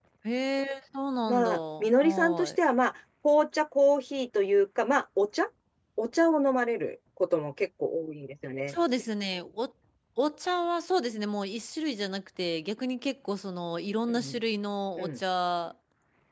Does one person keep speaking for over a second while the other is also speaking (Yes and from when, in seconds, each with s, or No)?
Yes, from 1.3 s